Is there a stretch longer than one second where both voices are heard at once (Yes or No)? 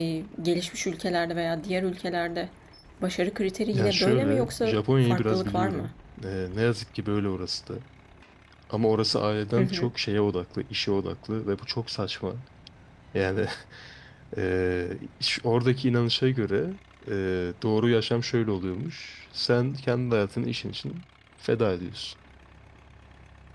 Yes